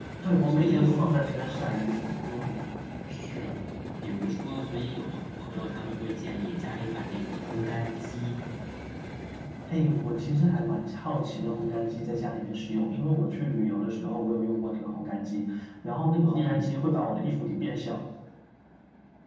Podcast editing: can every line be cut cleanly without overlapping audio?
No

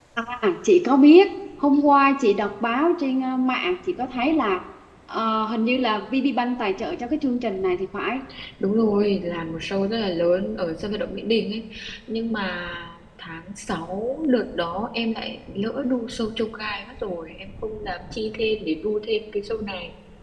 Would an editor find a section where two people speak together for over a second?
No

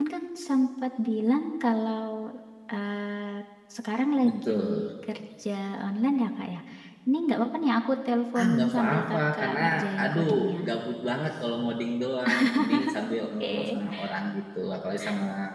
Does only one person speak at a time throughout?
No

